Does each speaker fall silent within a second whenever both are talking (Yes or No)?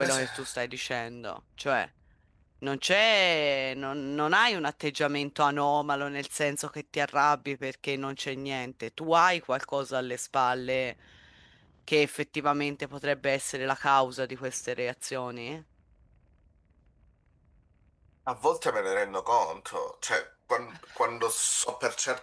Yes